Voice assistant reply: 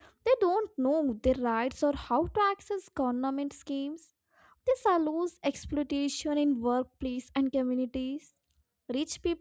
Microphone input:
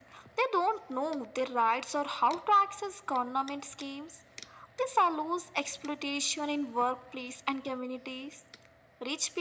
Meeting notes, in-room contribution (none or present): none